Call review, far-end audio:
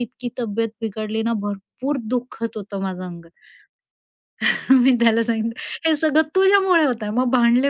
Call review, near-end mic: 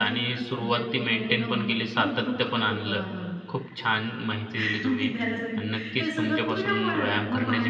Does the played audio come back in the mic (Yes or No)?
Yes